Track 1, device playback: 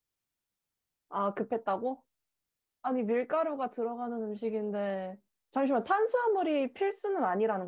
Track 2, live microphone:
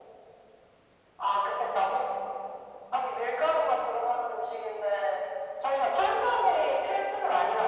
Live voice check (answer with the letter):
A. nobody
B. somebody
A